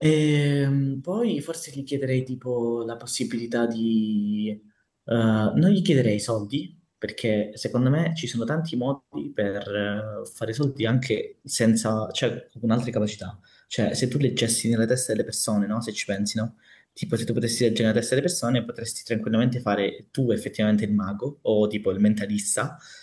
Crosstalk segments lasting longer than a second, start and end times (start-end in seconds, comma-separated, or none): none